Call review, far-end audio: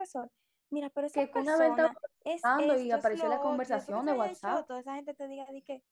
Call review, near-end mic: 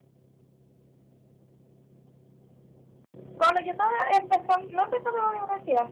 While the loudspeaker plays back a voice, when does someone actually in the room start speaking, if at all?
3 s

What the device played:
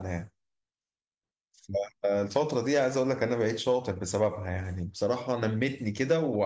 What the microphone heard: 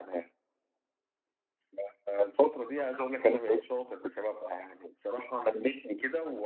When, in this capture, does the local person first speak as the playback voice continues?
none

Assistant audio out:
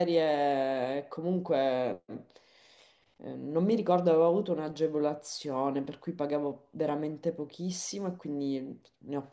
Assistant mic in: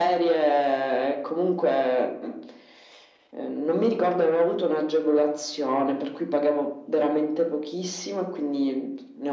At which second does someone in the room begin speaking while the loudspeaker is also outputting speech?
none

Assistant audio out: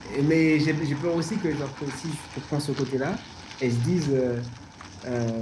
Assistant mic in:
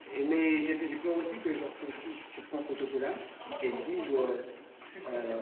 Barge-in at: 3 s

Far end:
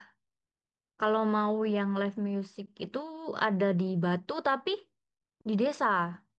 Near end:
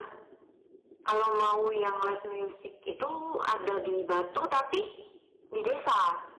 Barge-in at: none

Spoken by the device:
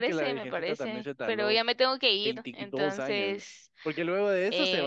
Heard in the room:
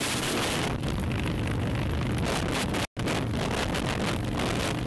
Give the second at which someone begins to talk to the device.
none

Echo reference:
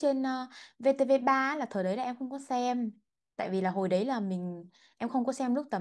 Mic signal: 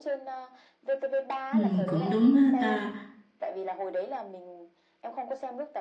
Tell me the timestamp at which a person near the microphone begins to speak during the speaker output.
2 s

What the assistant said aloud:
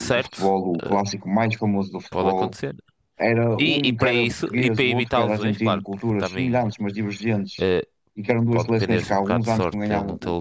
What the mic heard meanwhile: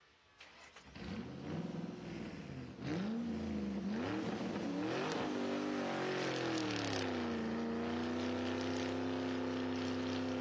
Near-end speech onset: none

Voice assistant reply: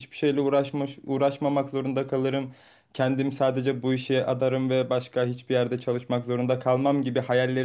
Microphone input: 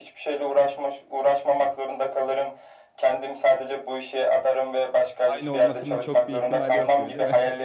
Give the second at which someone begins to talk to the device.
5 s

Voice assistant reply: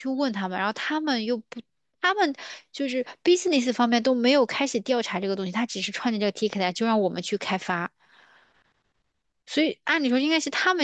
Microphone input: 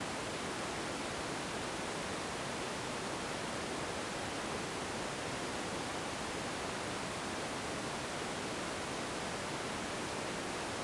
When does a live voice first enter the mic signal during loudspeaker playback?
none

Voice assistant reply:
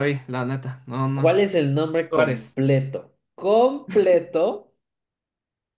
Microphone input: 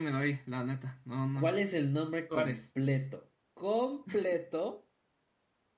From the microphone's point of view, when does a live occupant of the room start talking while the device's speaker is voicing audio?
none

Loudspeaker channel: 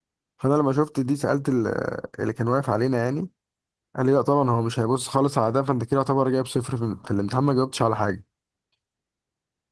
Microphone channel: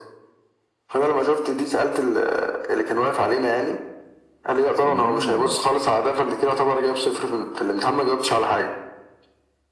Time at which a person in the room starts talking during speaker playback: 5 s

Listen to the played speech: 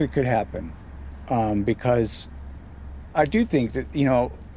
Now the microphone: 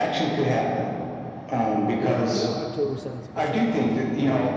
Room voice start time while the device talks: 2 s

